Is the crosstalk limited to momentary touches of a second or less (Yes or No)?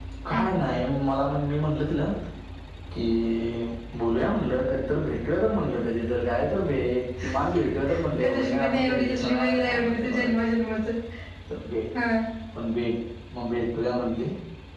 No